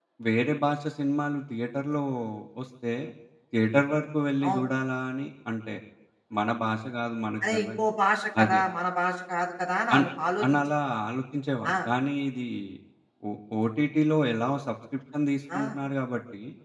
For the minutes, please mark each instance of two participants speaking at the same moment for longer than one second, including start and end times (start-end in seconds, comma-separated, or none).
none